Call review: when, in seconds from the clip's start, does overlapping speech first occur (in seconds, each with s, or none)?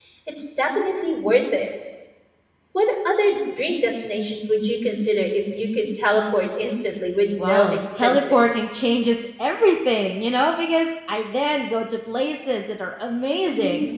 7.4 s